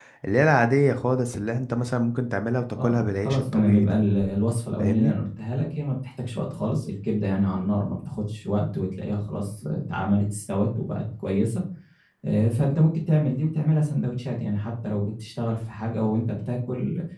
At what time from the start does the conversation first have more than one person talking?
3 s

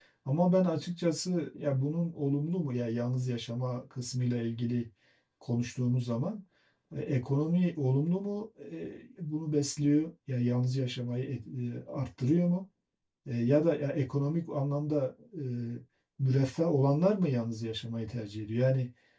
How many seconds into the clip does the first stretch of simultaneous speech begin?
none

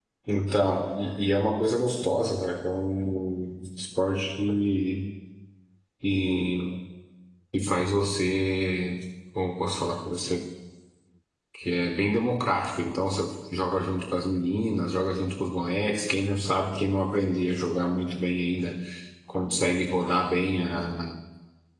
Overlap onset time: none

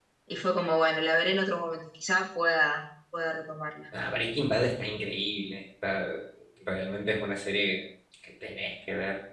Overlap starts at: none

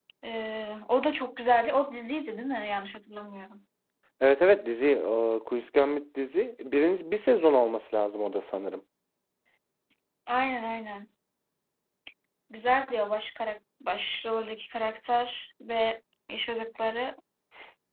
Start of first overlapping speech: none

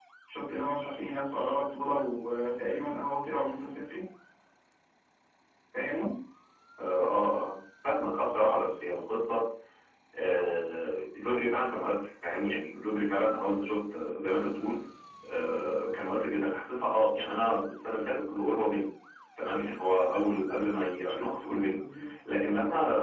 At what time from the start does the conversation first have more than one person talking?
none

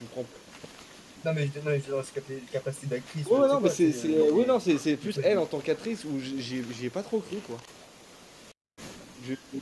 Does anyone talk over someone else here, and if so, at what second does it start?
3 s

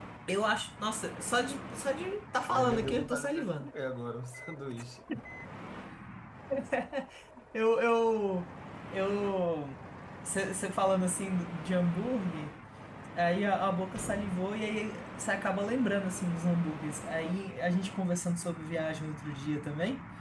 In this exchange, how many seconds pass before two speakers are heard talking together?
2 s

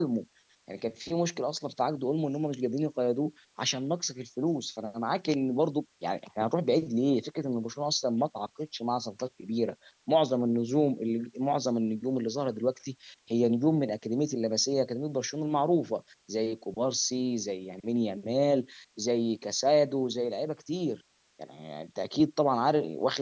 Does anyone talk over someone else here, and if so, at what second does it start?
none

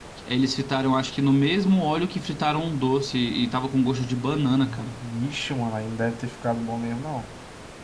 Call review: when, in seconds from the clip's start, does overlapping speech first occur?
none

